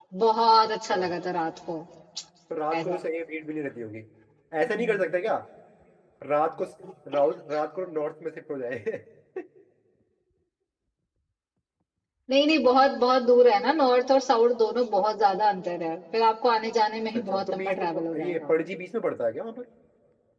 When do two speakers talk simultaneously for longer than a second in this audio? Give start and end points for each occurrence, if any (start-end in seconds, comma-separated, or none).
17.1-18.5